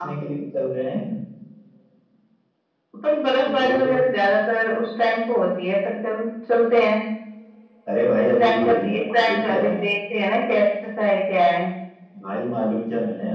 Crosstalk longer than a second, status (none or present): present